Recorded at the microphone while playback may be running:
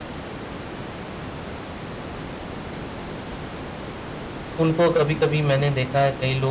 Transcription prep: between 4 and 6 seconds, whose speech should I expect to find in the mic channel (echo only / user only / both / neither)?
user only